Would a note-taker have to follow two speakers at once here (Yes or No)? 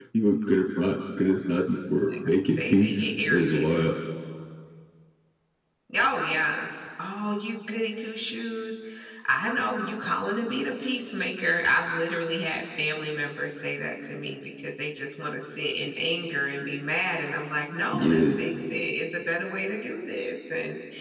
Yes